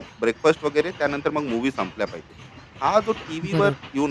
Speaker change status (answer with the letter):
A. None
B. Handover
A